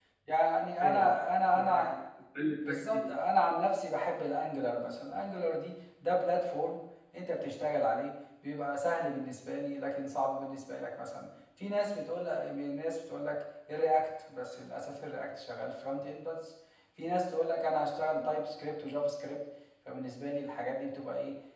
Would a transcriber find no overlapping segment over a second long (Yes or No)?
Yes